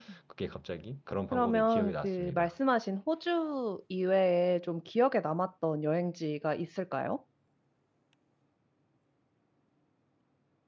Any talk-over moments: Yes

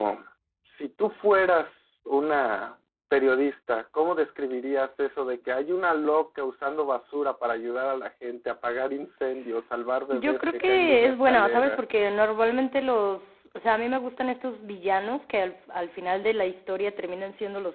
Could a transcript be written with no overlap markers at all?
No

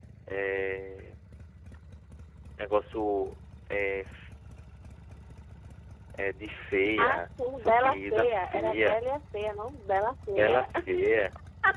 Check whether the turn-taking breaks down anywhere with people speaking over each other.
Yes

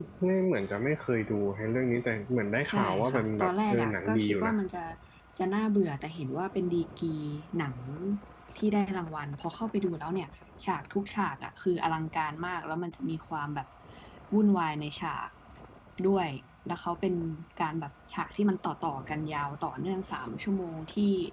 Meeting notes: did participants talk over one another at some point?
Yes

